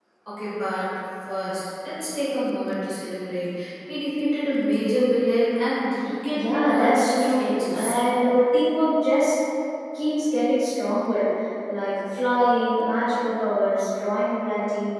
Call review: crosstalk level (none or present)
present